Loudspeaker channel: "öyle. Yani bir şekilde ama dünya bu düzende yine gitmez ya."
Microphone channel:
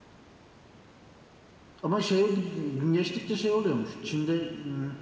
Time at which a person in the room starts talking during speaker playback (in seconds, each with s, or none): 1.8 s